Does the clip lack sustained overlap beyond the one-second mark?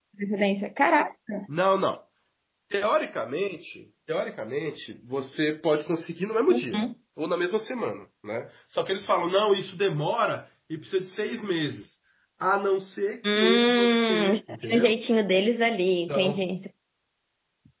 No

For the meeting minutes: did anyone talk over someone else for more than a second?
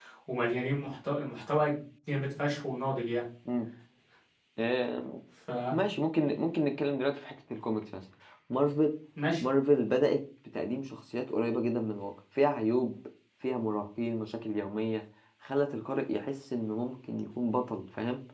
No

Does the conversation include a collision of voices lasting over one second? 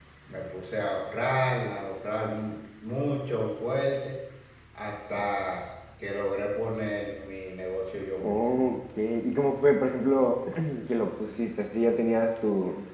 No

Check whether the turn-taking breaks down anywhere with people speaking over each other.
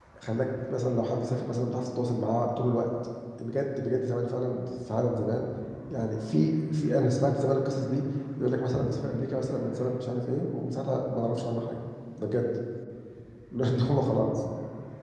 No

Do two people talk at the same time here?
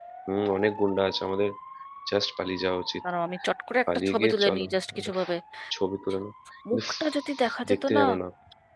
Yes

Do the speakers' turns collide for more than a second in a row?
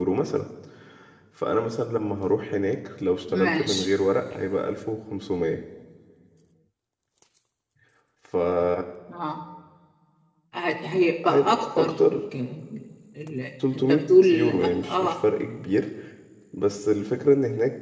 Yes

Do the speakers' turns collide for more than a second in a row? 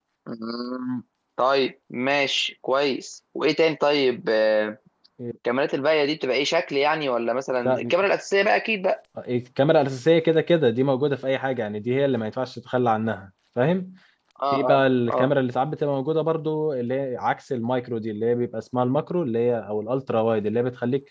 No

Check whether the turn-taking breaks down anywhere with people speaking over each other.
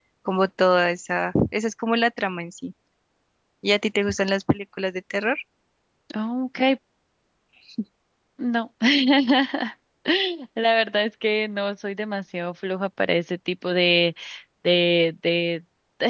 No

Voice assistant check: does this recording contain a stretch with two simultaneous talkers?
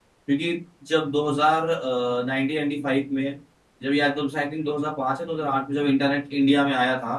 No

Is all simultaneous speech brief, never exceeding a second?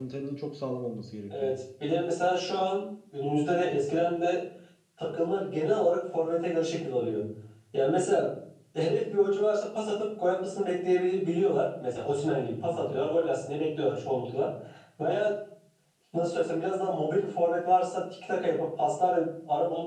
Yes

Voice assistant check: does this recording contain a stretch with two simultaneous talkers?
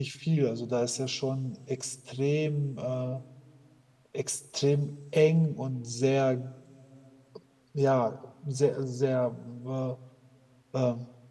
No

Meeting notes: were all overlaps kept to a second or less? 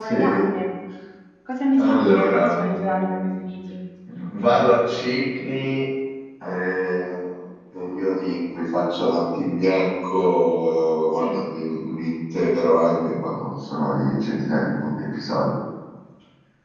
No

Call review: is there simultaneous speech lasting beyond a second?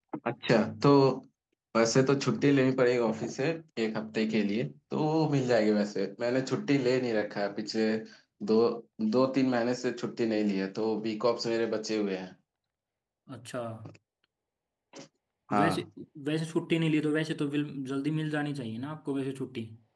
No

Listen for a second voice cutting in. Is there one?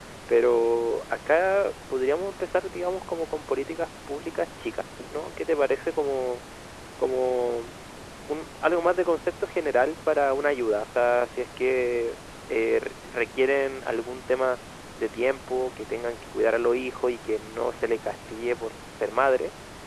No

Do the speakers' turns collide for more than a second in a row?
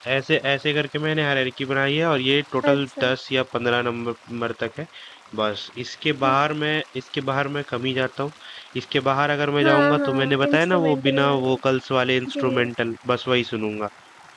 Yes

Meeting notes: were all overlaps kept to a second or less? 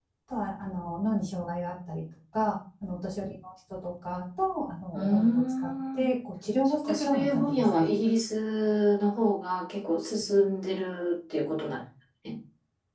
No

